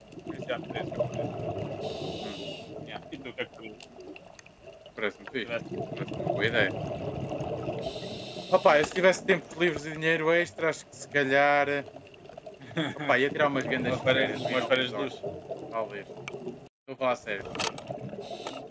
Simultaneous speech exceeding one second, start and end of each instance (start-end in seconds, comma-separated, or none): 13.8-15.1